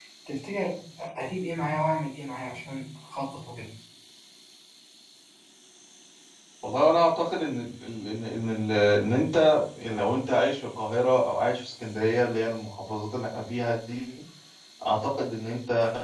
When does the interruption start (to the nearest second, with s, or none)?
none